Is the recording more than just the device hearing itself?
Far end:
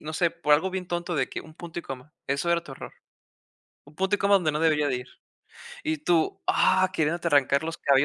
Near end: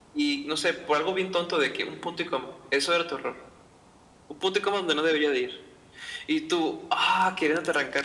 No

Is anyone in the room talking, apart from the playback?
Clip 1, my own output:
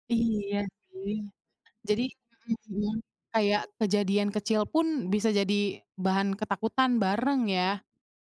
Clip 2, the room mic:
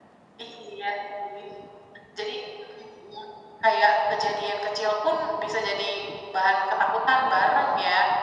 No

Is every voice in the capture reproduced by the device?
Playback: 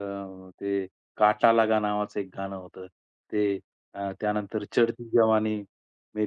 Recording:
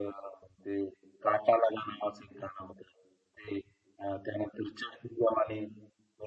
Yes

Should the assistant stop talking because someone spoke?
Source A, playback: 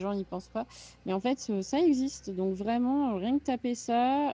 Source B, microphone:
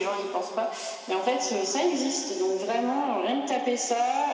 No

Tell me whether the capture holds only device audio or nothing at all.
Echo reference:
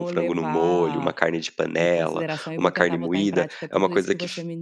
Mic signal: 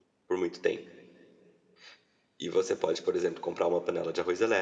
No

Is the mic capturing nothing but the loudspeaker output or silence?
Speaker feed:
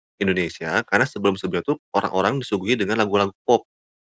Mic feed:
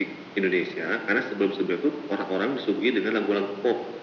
Yes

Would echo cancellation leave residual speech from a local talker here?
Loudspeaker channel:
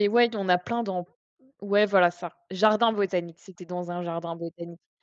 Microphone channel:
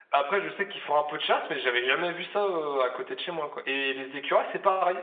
Yes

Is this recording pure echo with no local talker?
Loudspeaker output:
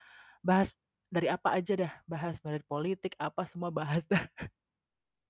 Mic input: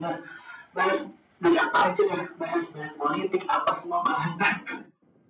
Yes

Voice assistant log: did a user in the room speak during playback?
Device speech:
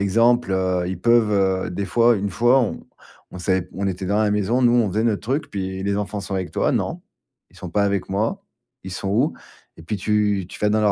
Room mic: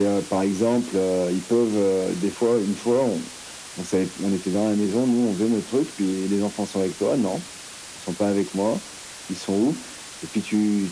No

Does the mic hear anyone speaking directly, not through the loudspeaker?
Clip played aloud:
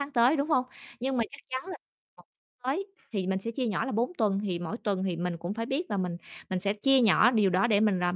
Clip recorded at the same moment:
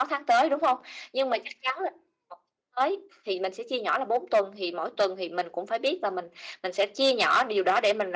No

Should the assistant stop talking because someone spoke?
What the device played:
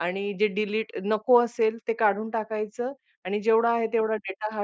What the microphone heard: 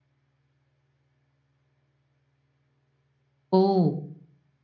Yes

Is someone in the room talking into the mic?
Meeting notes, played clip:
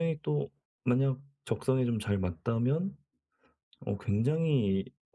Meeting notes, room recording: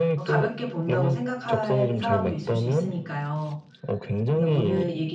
Yes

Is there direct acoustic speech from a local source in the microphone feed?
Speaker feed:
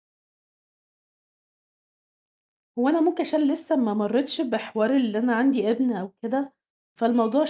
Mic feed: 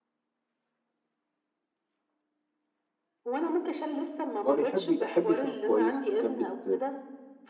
Yes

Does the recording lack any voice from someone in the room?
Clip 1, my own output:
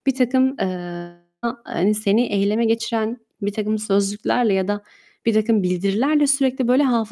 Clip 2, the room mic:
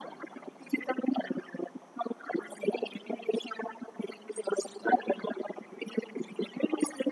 Yes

